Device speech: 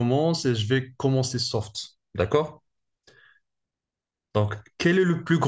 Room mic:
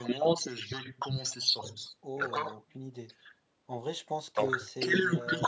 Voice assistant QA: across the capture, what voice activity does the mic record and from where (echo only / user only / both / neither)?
both